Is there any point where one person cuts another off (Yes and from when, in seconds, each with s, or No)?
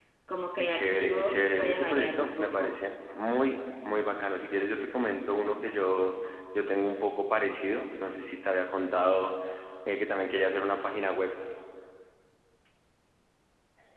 Yes, from 0.6 s